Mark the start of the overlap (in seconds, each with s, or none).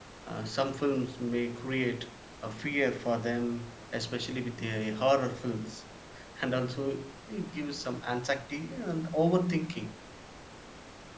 none